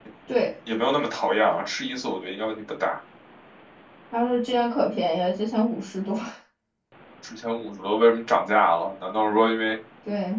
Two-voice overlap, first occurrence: none

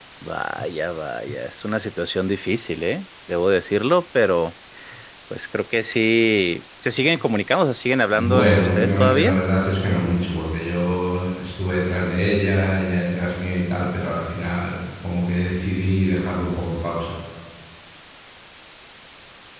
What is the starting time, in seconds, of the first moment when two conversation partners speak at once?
8.1 s

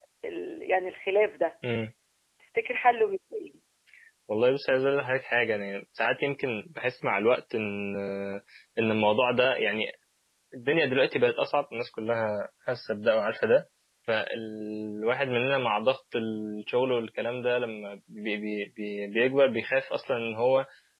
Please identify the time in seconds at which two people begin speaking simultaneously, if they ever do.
none

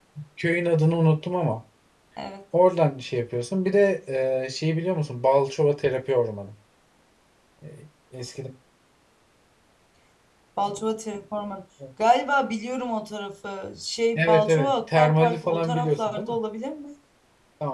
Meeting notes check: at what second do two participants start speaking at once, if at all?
14.2 s

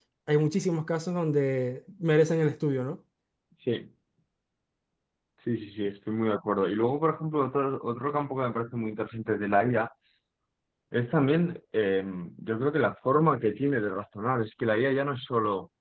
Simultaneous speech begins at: none

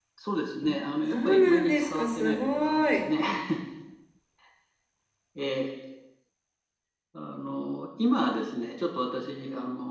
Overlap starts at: 1.1 s

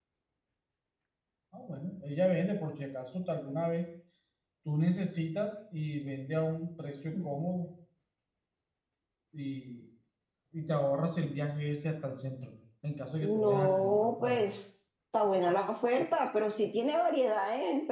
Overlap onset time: 13.2 s

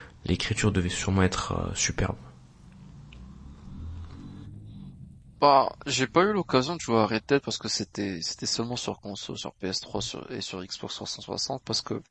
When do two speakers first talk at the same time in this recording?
none

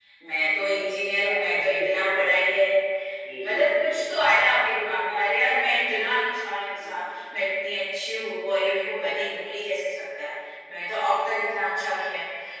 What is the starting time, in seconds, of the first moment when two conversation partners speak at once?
0.8 s

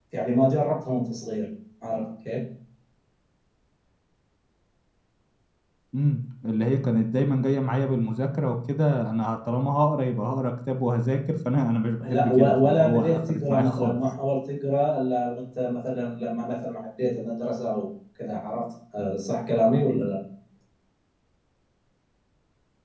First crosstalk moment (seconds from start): 12.0 s

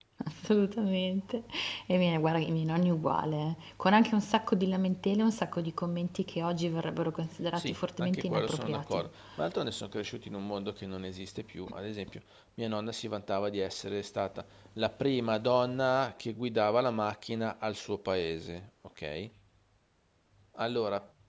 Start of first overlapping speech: 7.6 s

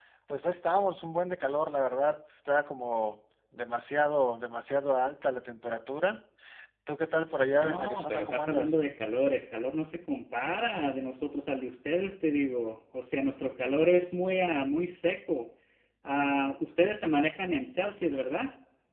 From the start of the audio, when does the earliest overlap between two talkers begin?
7.5 s

